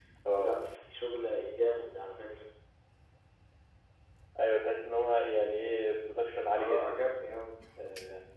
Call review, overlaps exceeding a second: none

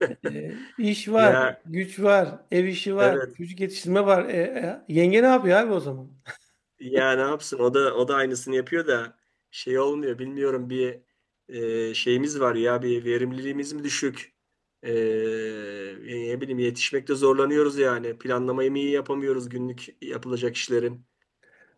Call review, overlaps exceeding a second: none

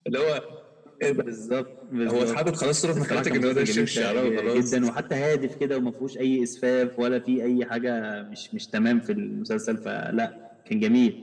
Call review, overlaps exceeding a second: present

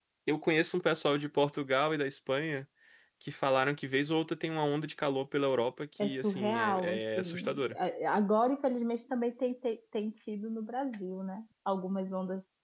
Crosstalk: present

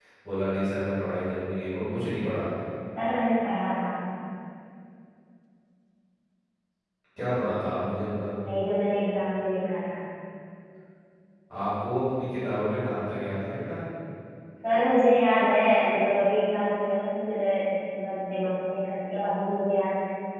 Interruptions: none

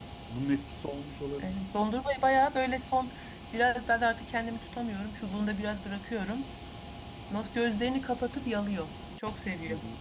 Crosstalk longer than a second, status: none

